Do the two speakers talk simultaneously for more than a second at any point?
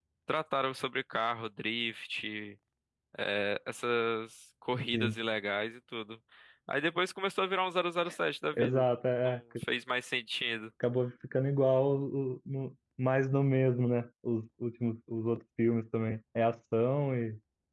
No

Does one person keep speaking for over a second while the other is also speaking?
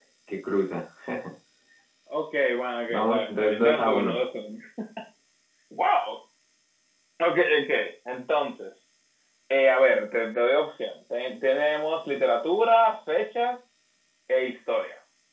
Yes, from 2.9 s

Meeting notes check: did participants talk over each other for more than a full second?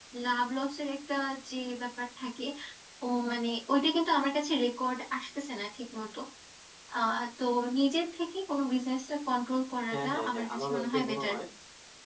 Yes, from 9.9 s

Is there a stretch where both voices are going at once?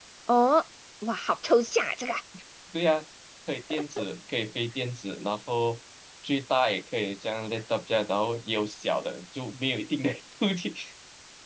No

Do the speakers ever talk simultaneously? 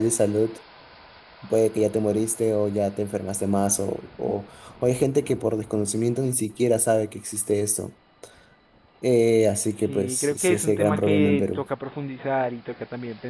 Yes, from 9.8 s

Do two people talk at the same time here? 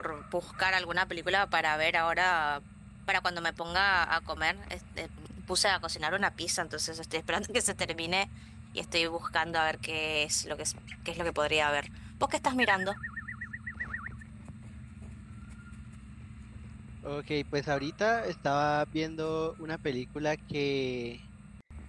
No

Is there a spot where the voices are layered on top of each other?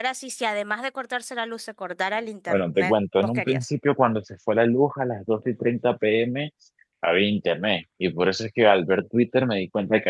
Yes, from 2.5 s

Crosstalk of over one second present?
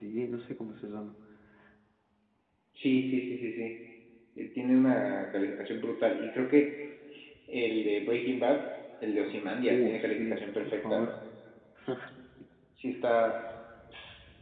Yes, from 9.7 s

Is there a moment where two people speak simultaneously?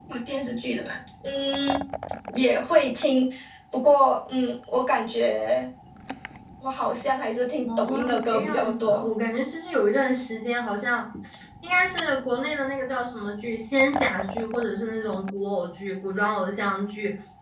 Yes, from 7.7 s

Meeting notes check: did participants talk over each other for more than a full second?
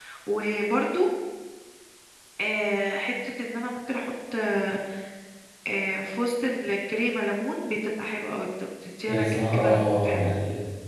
Yes, from 9.1 s

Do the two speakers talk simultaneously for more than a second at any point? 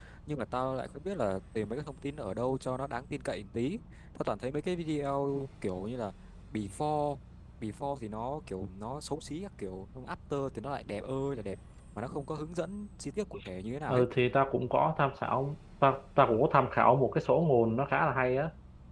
No

